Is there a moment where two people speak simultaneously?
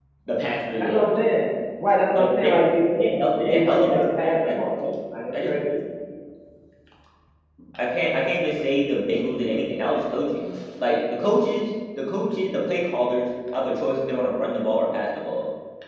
Yes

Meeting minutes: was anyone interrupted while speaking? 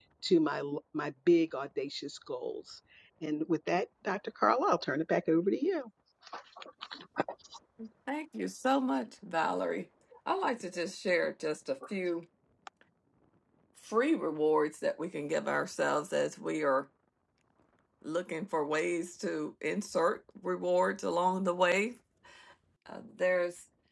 No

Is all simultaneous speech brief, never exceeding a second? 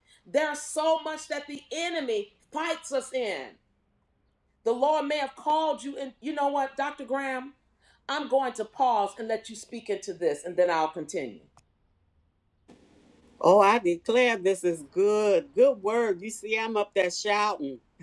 Yes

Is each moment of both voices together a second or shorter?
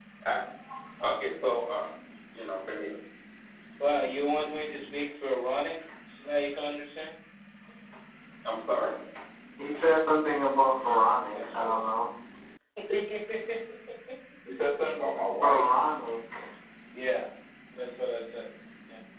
No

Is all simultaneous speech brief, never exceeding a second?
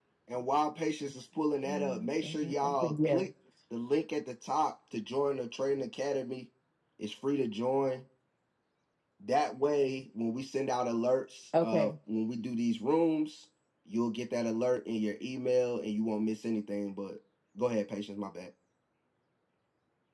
No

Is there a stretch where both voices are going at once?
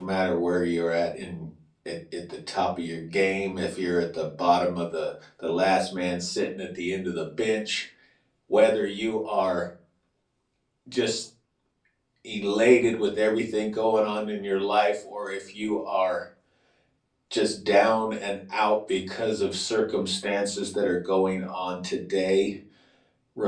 No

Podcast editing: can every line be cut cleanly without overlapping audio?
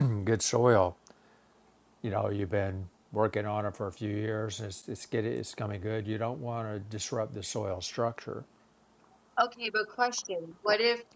Yes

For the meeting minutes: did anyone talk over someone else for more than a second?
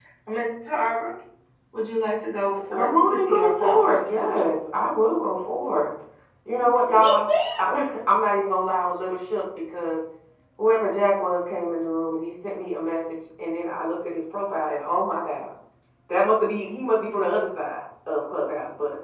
Yes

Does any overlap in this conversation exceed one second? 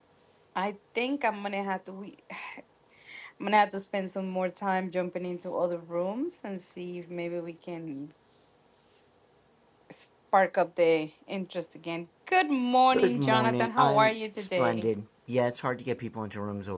Yes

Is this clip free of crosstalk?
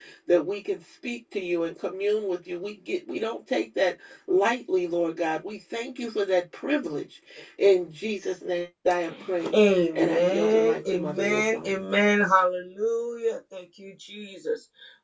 No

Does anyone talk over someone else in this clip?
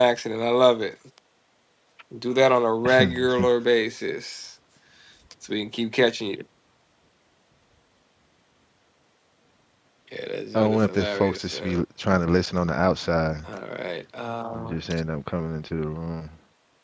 Yes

